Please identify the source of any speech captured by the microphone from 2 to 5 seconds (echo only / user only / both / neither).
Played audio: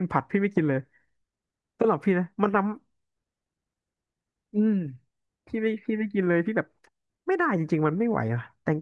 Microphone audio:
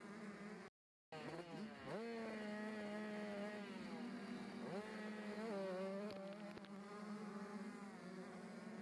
neither